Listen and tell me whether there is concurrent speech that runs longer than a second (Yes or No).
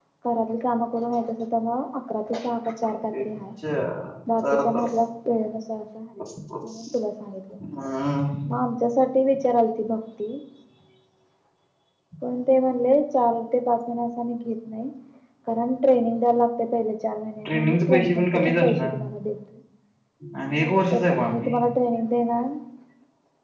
Yes